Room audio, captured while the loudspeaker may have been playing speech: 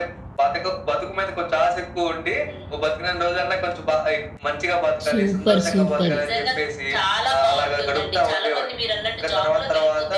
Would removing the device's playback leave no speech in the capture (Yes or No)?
No